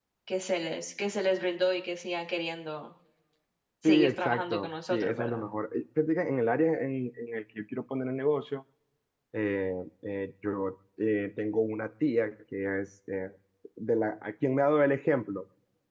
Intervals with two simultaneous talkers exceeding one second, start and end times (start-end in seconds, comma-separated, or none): 3.8-5.5